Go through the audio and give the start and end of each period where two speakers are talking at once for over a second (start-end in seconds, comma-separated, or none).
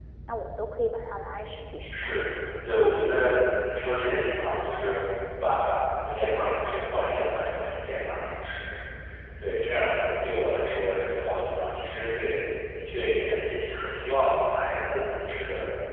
none